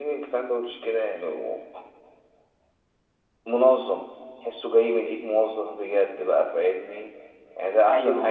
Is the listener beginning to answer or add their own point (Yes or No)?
No